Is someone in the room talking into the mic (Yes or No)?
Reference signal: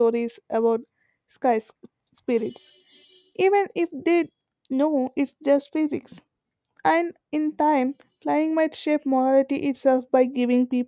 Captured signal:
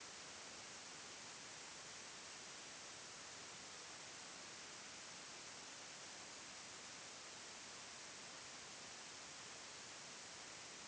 No